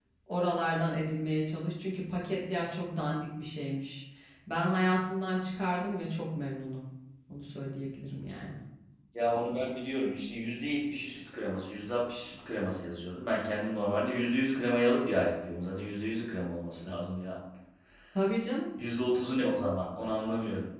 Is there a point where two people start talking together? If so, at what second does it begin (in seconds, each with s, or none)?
none